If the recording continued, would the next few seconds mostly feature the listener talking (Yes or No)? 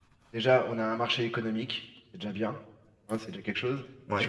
No